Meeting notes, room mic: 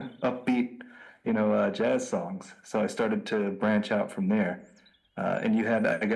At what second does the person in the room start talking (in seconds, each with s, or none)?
none